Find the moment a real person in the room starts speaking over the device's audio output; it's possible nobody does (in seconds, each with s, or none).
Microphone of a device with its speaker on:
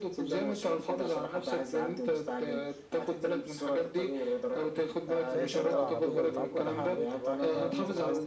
5.3 s